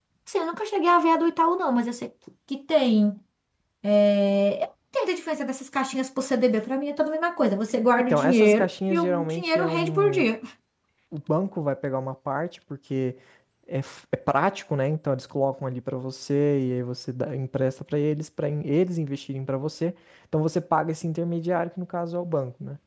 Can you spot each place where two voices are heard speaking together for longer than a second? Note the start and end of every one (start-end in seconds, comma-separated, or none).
8.1-10.2